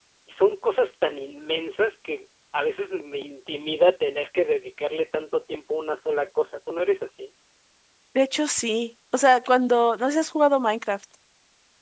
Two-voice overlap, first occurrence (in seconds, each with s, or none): none